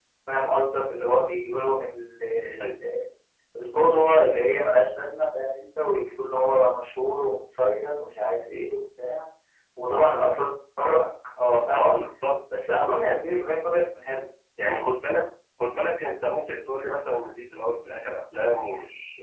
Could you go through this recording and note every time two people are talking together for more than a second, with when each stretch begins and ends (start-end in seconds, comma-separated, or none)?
none